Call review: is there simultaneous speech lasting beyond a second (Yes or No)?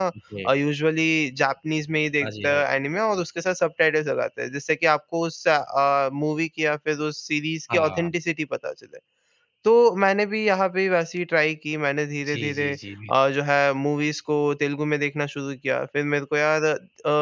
No